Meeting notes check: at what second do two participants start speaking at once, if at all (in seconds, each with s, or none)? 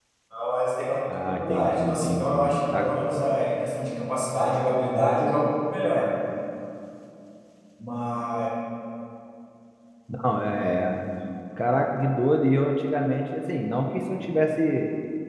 1.2 s